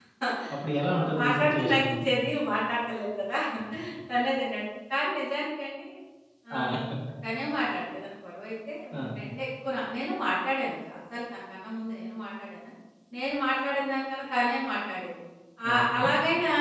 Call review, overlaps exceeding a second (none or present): present